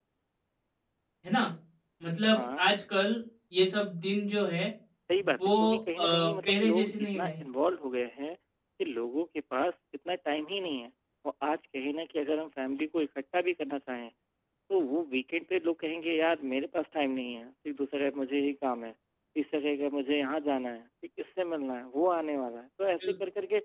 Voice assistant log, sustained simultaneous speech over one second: present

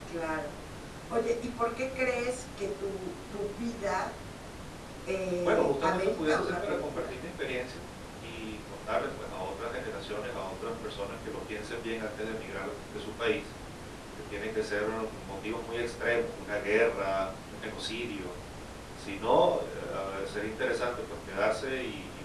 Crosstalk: present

